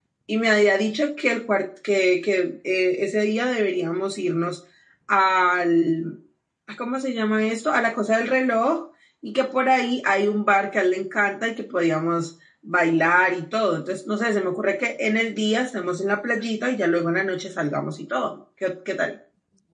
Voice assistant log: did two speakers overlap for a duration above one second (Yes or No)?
No